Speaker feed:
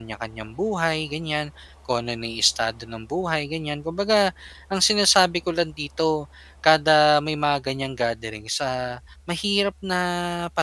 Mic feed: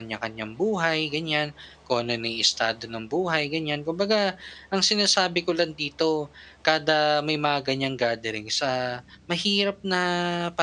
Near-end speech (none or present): none